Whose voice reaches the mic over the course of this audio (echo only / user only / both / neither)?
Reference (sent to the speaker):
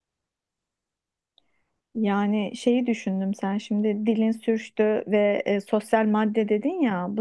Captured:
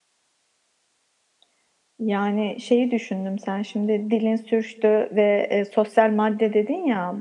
echo only